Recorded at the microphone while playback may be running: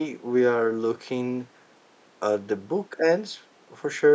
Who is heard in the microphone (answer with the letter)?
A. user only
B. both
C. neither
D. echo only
A